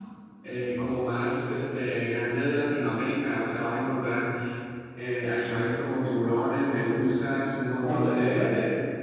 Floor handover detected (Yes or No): No